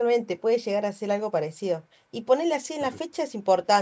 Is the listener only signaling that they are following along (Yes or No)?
Yes